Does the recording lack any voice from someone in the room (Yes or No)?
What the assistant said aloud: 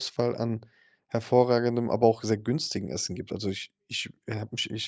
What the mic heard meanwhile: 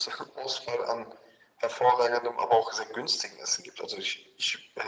Yes